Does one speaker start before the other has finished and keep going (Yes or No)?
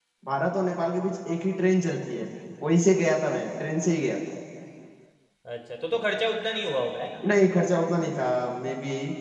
No